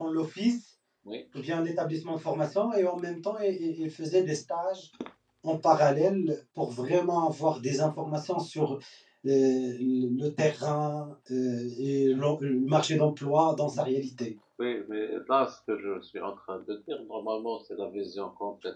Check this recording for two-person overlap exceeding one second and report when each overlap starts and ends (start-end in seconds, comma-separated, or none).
none